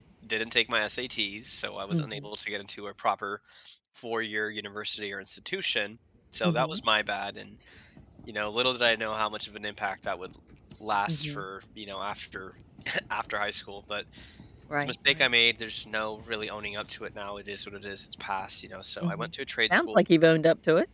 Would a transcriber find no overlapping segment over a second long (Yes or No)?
Yes